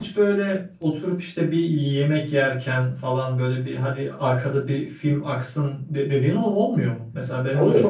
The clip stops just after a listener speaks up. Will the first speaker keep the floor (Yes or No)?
No